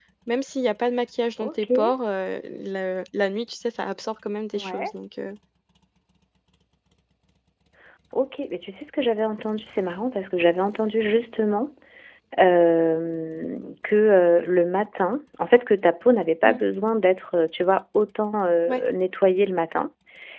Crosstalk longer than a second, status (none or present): none